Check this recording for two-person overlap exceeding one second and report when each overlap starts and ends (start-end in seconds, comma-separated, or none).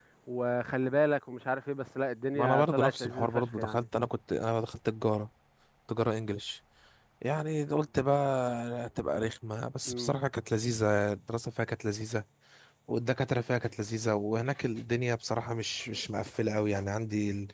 2.4-3.9